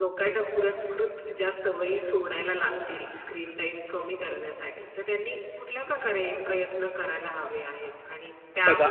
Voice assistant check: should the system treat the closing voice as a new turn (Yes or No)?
No